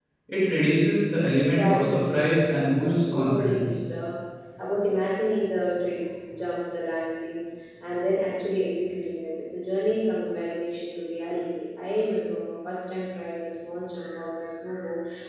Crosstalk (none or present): present